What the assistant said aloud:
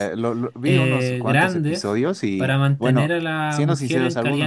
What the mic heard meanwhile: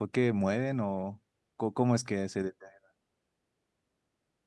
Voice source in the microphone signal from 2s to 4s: user only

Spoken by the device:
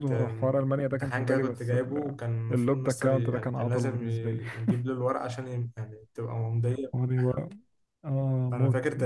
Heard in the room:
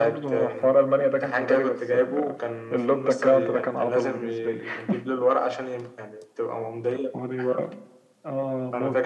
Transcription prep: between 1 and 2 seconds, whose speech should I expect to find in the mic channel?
echo only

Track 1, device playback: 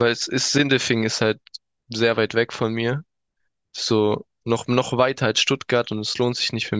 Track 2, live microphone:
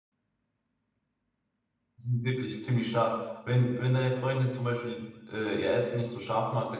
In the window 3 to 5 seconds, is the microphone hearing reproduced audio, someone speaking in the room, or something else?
user only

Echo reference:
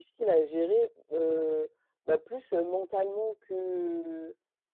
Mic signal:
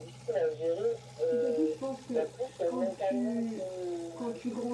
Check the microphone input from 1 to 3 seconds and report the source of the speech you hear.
both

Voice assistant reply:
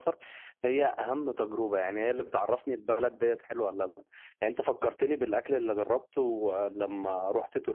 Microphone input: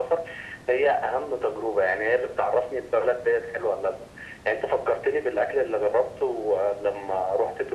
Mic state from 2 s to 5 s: echo only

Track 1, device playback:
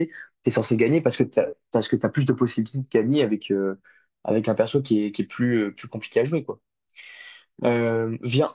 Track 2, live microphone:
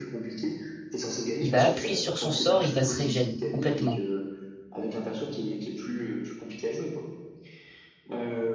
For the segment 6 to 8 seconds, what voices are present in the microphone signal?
echo only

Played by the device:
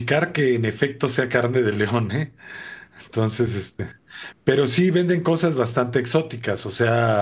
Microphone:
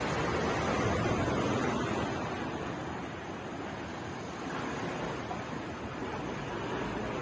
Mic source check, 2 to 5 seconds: neither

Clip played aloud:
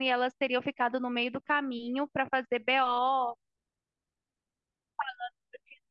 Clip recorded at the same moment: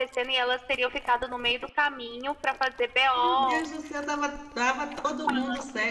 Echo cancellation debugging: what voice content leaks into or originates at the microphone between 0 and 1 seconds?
echo only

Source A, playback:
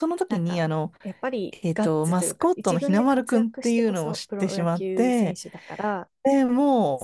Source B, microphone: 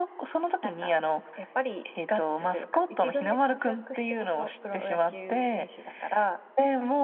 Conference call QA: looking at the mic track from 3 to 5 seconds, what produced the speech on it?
echo only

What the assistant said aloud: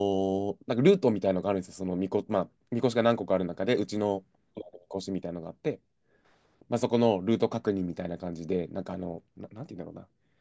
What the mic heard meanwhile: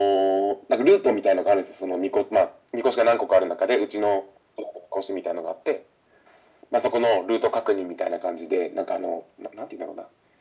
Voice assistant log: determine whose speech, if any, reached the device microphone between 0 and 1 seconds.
echo only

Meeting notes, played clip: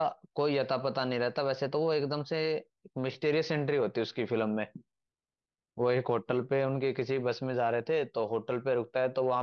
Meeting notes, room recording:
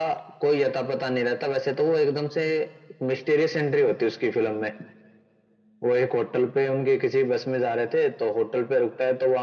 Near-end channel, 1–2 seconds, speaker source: echo only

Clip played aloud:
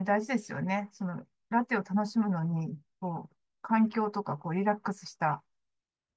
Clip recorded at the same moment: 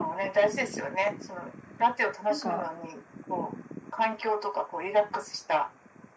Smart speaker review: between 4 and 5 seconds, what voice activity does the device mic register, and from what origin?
echo only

